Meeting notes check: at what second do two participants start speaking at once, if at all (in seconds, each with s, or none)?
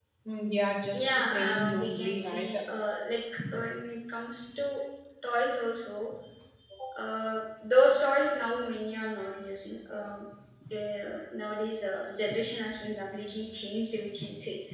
1.1 s